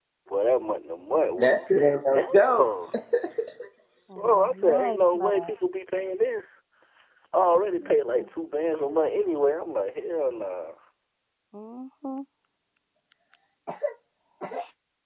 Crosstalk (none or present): present